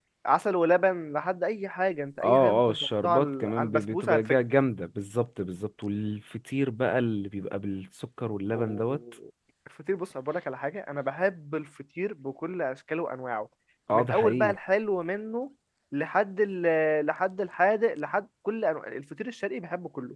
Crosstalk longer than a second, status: present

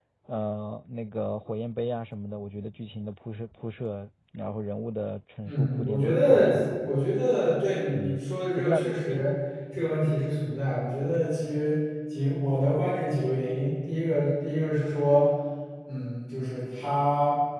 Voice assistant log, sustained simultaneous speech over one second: present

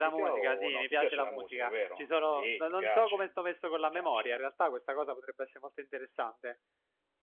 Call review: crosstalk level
present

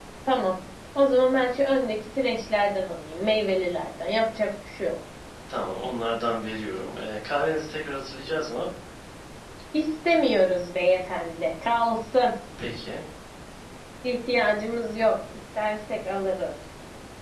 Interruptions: none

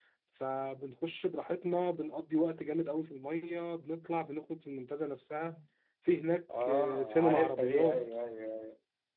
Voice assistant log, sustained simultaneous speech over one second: present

